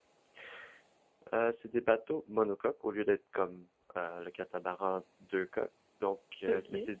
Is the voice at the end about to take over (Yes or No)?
No